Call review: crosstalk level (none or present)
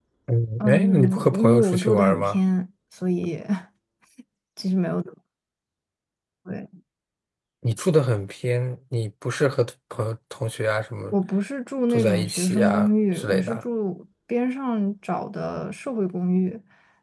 present